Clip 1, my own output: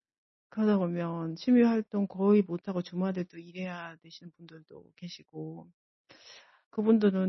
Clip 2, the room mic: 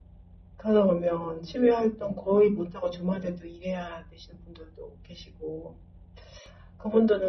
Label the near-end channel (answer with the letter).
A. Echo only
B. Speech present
A